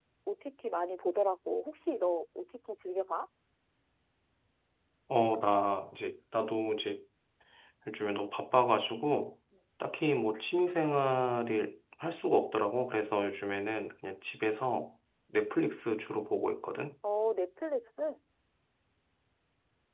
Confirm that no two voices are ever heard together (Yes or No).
Yes